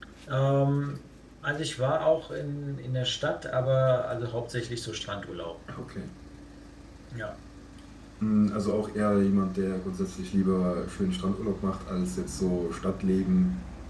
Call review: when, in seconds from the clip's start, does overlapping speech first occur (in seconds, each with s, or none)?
none